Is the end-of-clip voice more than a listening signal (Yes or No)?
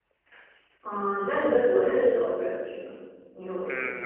Yes